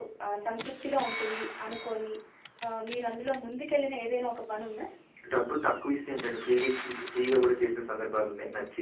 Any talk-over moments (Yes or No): No